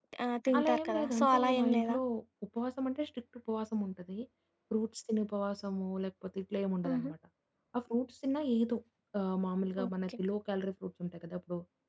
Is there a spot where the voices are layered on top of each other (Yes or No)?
Yes